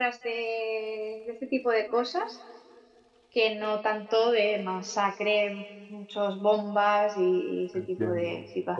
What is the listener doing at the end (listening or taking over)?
taking over